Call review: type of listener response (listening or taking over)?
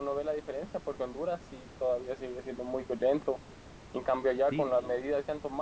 listening